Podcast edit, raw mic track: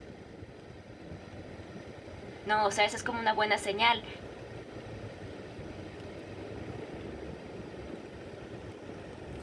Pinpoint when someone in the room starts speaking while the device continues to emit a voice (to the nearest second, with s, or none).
2 s